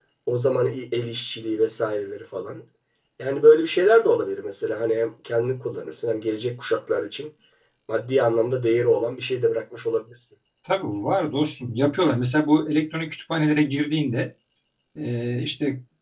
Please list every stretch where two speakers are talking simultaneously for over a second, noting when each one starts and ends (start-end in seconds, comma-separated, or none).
none